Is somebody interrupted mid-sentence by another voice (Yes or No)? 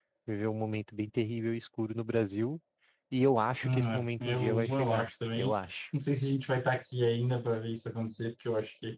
Yes